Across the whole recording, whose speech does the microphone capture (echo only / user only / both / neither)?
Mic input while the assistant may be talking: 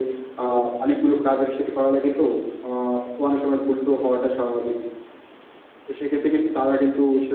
echo only